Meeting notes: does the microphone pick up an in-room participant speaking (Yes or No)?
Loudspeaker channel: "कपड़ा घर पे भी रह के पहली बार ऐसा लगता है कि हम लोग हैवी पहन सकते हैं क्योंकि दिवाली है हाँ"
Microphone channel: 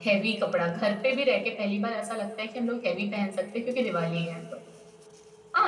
No